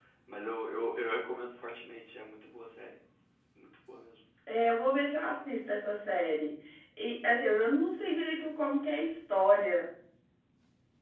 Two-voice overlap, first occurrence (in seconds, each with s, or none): none